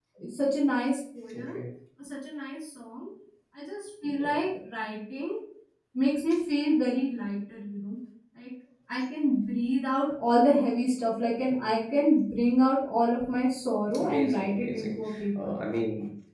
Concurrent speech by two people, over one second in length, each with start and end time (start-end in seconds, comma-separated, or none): 14.0-15.5